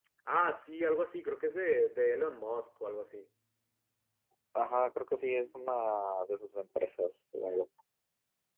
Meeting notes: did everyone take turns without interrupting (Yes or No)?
Yes